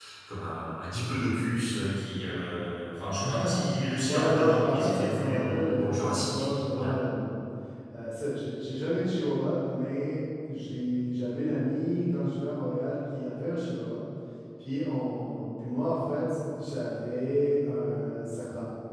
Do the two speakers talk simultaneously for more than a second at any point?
Yes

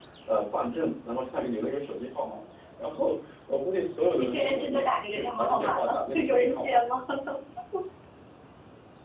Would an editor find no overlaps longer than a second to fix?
No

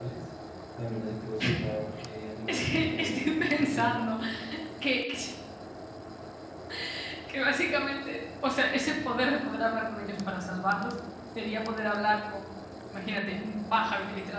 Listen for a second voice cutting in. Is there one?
Yes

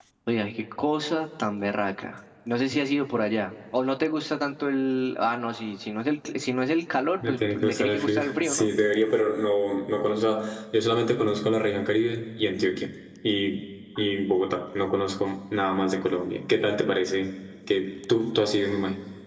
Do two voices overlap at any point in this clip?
Yes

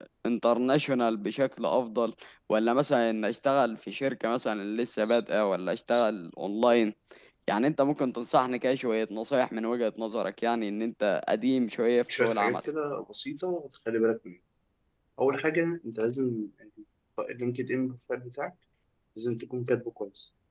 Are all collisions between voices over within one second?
Yes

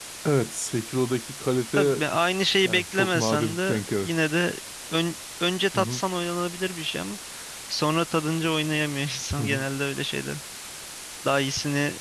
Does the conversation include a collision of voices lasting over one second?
Yes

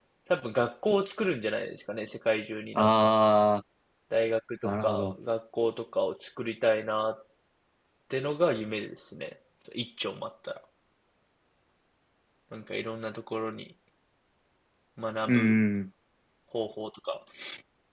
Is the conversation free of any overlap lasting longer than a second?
Yes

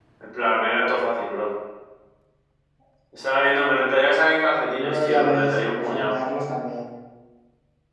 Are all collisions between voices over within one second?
No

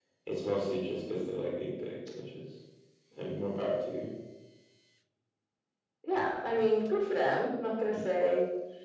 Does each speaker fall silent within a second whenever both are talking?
Yes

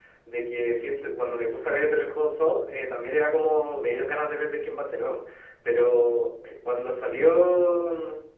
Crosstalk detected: No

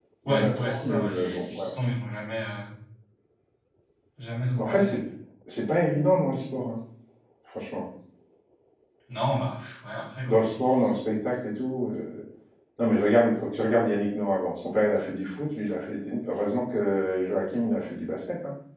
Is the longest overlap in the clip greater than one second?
Yes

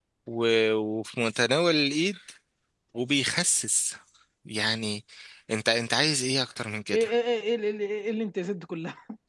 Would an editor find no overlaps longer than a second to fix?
Yes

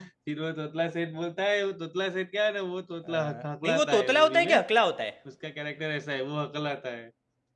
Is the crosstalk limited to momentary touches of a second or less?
No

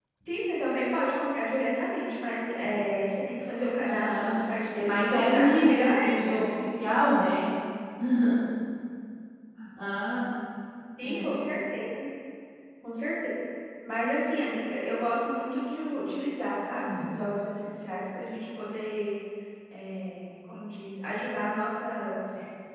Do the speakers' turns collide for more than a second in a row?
Yes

